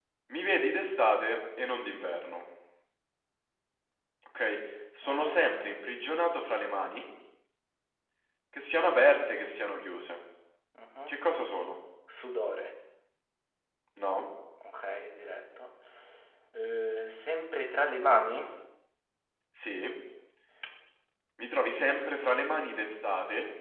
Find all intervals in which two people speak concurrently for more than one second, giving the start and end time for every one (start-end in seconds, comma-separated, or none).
none